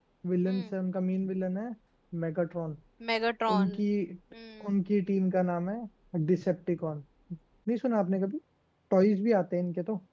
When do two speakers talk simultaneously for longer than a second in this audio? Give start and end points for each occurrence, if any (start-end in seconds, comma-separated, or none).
none